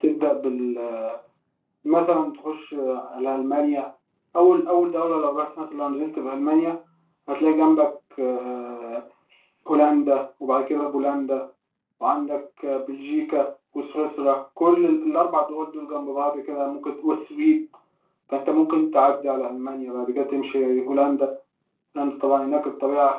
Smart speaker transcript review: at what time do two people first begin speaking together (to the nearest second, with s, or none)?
none